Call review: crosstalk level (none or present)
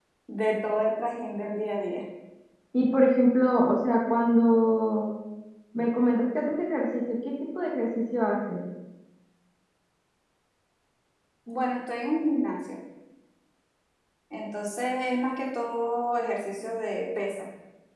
none